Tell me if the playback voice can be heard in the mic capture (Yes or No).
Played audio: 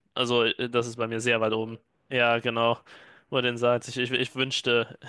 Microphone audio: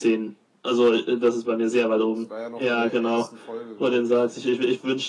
Yes